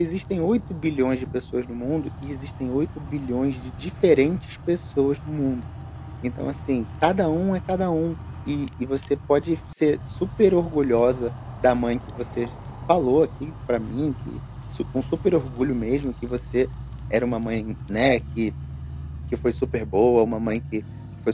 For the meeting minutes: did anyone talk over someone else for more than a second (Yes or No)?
No